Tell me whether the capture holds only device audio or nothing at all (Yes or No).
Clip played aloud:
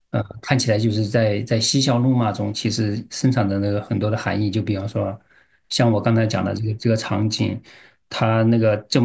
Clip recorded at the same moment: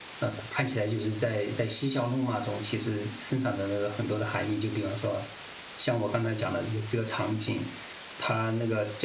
Yes